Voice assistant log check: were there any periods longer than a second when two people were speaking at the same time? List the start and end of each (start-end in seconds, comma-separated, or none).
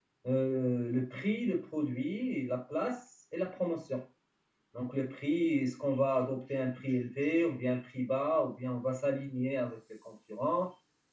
none